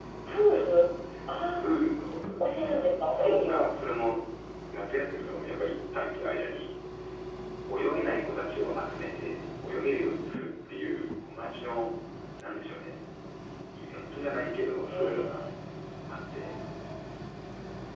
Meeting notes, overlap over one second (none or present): present